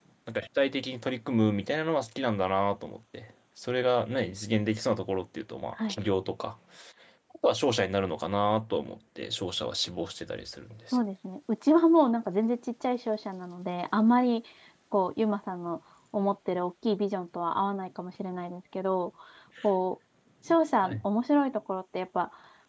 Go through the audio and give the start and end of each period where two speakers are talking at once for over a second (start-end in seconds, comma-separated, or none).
none